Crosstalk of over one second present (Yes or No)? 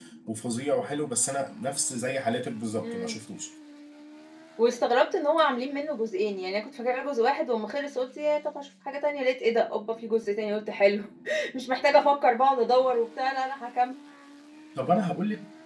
No